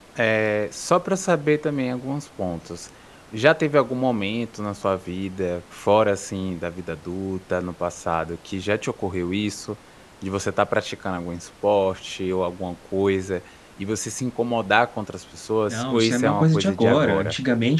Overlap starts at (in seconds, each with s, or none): 15.7 s